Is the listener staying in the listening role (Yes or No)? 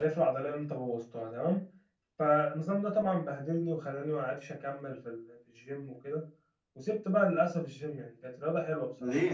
No